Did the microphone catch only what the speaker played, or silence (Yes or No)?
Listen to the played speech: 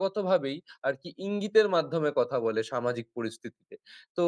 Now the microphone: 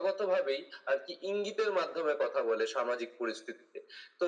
Yes